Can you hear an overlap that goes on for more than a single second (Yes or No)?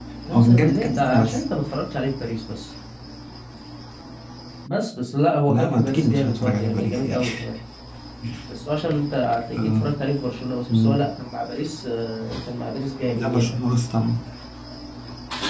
Yes